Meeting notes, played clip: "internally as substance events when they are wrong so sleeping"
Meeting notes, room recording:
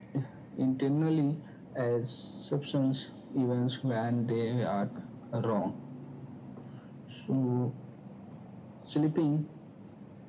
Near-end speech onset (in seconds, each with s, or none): none